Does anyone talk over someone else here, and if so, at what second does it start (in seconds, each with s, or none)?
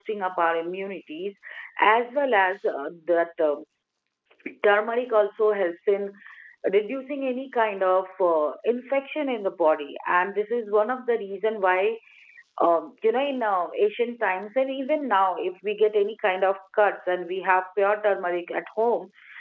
none